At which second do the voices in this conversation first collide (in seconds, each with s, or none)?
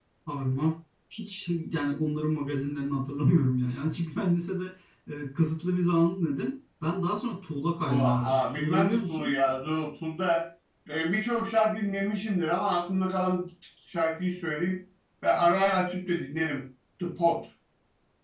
7.9 s